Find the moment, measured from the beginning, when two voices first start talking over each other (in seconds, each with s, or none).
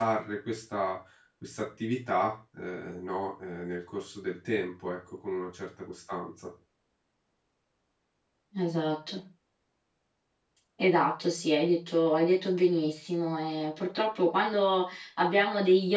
none